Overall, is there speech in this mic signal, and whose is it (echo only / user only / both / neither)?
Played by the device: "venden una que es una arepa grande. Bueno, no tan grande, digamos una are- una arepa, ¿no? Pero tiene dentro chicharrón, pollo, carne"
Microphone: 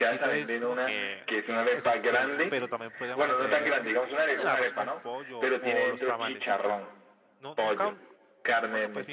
both